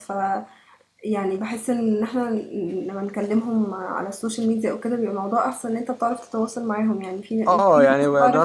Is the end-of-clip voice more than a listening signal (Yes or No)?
Yes